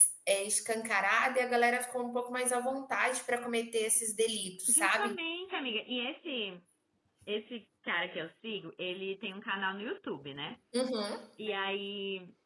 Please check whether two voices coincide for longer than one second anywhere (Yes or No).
No